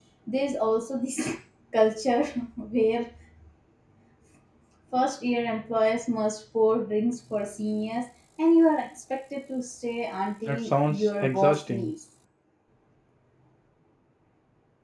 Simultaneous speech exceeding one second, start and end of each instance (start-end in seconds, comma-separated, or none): 10.4-11.9